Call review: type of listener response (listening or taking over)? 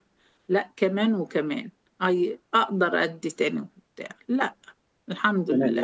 taking over